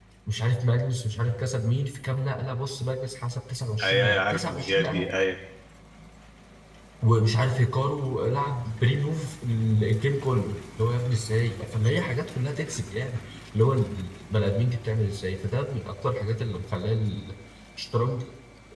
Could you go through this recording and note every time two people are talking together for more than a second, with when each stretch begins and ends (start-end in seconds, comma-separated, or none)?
3.8-5.1